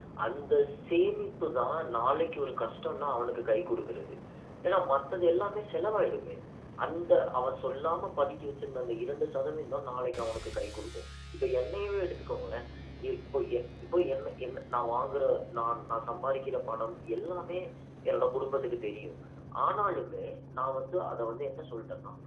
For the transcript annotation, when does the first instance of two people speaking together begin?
none

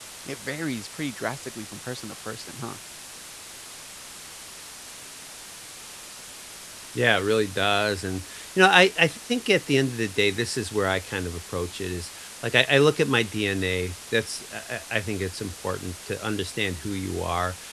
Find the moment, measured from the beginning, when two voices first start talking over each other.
none

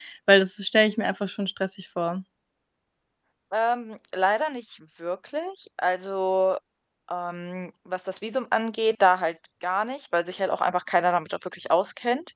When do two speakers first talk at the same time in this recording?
none

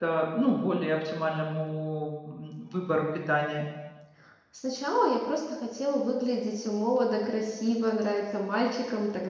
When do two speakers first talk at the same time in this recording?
none

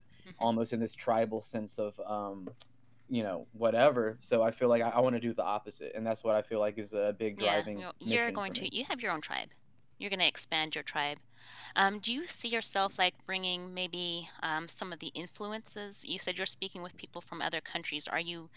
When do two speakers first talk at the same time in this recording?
7.4 s

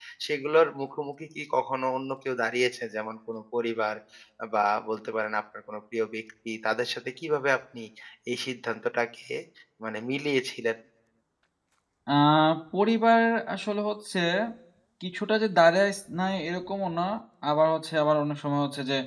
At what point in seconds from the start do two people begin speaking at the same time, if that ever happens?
none

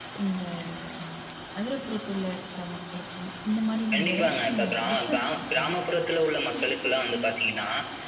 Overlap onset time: 3.9 s

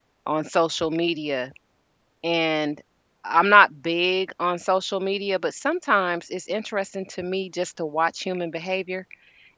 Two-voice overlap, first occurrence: none

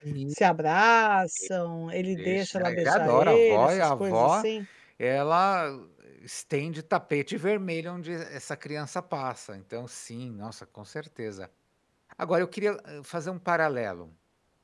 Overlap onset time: 2.2 s

